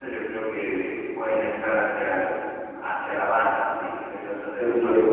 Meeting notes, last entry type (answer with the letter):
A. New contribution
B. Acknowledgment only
A